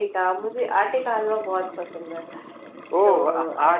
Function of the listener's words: taking over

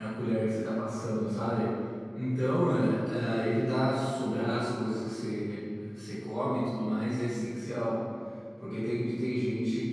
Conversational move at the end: listening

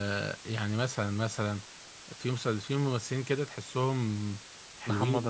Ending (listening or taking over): listening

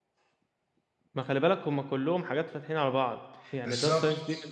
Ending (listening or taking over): listening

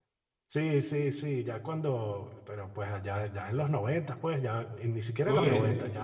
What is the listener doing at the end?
listening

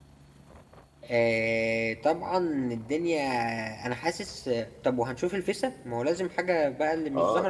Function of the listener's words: taking over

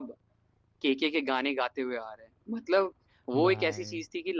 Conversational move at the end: listening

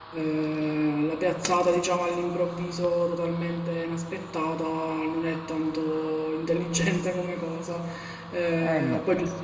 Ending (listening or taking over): listening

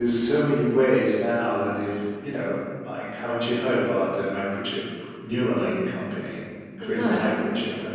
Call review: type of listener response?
listening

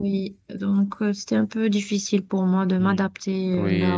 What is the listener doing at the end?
taking over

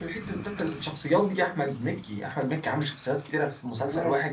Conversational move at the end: taking over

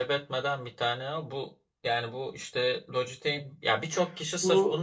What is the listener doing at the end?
listening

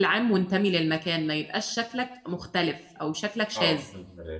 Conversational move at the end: taking over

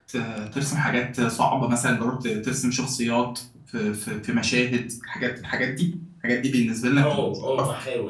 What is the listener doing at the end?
taking over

